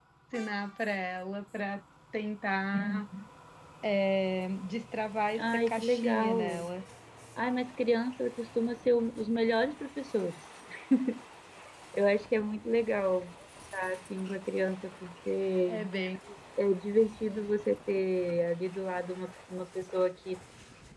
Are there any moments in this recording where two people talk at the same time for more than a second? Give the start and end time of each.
5.4-6.7

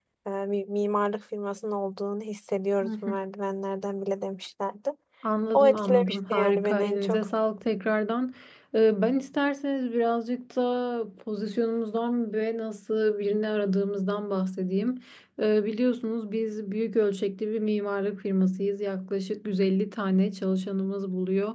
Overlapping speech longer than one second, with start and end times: 5.5-7.3

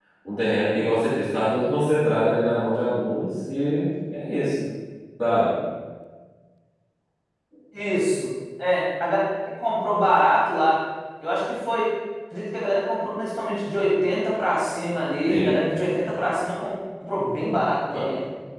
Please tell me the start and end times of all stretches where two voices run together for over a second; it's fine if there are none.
none

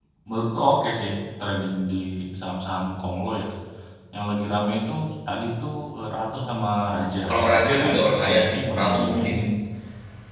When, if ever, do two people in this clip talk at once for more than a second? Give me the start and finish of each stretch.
7.3-9.3

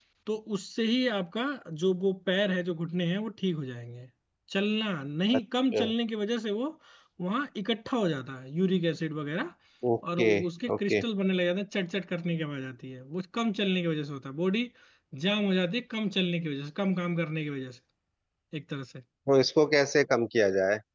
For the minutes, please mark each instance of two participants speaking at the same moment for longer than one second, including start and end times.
none

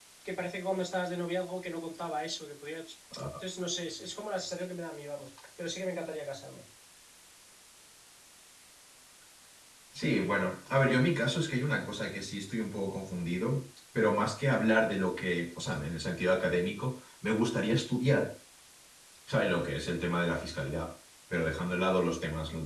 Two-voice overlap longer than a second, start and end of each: none

